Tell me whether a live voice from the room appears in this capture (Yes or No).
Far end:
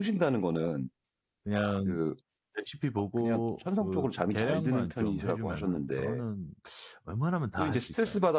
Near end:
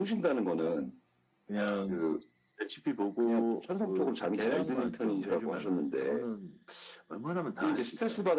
No